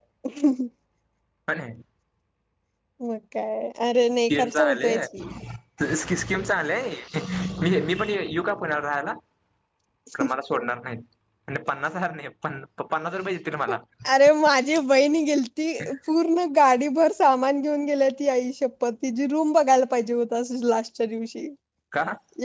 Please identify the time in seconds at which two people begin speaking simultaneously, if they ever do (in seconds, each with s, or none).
4.0 s